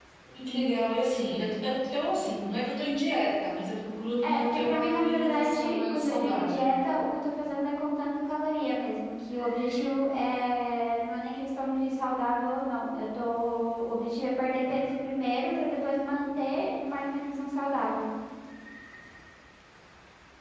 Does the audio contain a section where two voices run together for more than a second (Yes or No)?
Yes